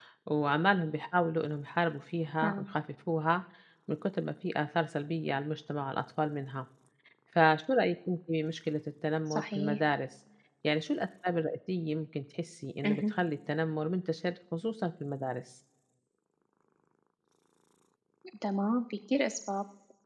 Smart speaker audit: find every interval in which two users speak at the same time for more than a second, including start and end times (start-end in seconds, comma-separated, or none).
none